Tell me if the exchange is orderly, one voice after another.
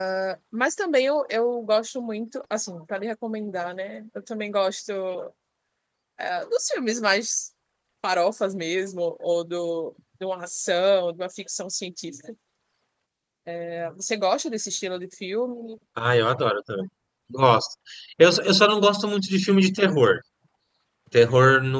Yes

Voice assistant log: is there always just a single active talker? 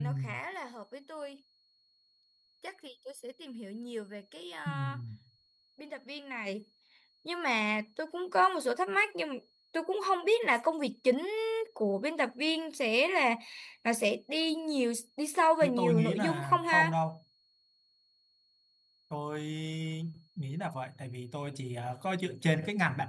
No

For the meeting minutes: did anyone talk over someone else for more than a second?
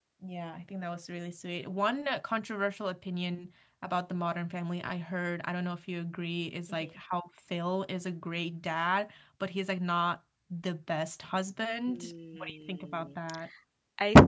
Yes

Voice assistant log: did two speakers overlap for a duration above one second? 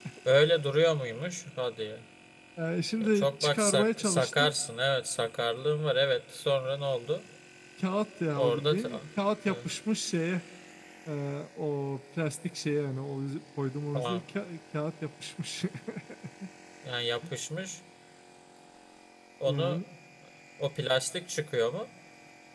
Yes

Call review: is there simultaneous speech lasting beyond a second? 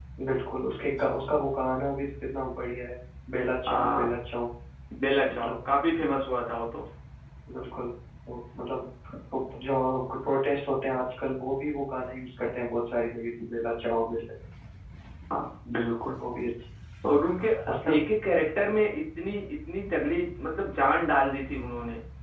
No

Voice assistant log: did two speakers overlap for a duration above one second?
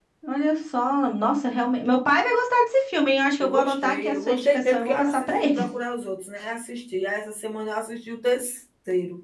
Yes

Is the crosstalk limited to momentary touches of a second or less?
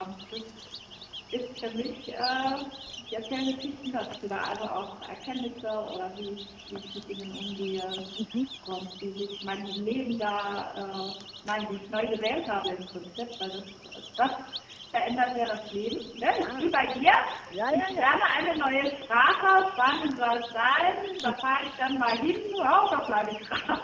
Yes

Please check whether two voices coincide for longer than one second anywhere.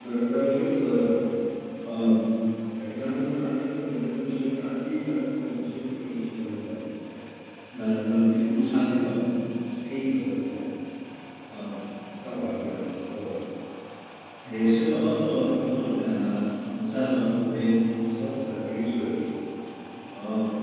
No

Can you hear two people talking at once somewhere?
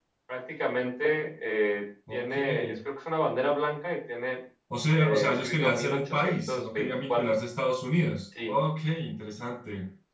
Yes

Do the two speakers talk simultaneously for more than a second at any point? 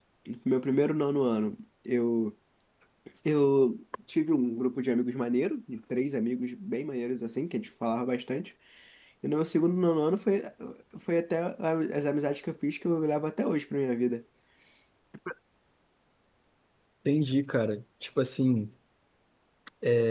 No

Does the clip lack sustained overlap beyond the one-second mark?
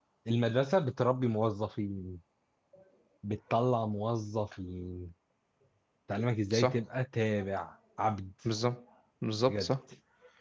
Yes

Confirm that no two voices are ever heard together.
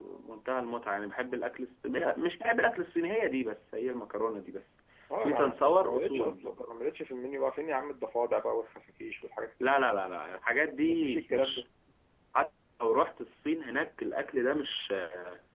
No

